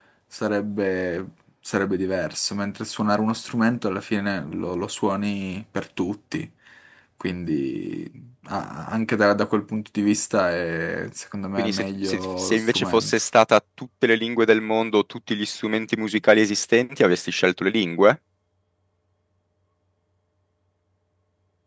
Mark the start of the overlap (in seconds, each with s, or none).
11.6 s